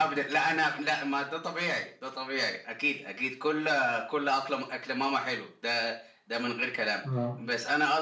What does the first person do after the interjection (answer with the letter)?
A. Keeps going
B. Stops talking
A